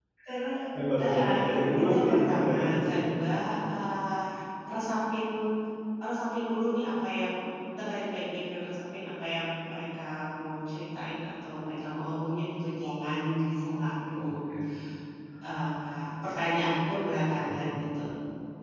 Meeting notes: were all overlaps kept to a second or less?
No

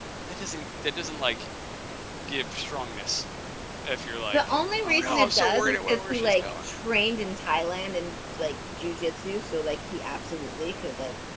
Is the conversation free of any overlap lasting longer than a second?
No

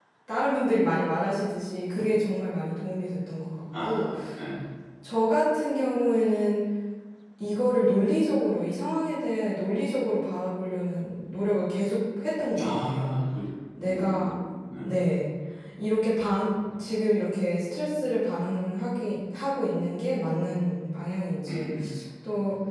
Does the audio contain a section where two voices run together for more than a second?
No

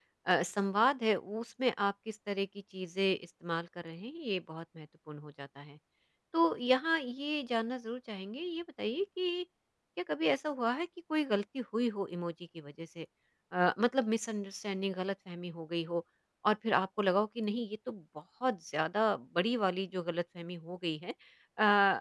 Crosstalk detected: No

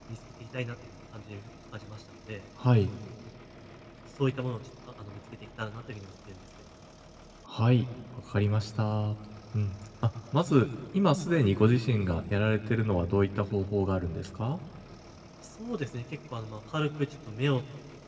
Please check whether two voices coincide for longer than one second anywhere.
No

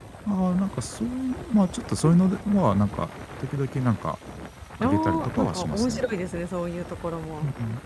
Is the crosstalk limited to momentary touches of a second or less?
No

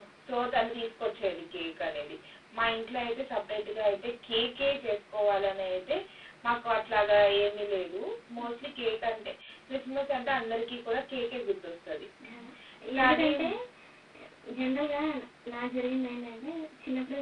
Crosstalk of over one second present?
No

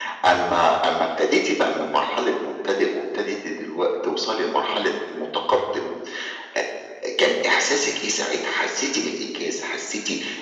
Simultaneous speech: No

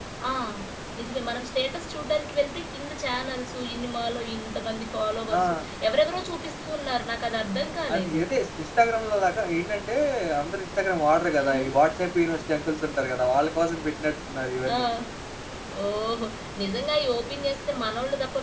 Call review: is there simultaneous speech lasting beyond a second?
No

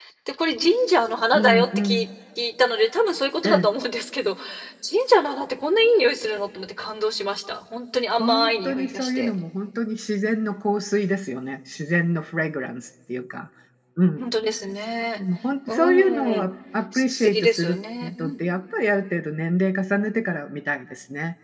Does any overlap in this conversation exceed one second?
Yes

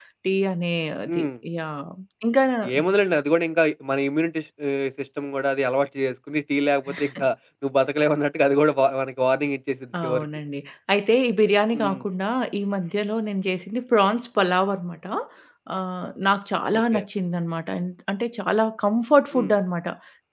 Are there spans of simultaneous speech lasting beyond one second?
No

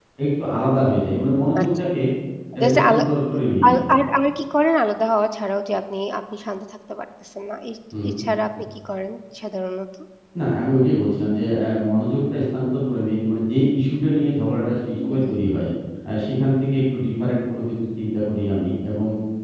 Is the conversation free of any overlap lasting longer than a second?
Yes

